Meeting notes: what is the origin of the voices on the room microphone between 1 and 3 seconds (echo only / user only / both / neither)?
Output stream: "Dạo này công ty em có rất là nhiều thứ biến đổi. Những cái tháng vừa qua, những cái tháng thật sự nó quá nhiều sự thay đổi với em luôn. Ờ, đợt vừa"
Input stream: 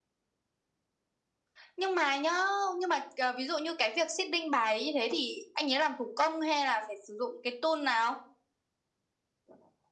user only